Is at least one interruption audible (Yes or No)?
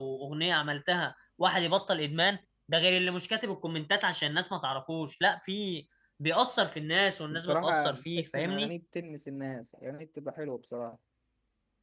Yes